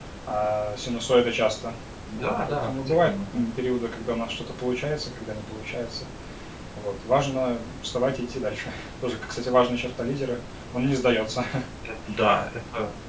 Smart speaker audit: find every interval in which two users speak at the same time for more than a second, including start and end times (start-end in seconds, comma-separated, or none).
2.2-3.4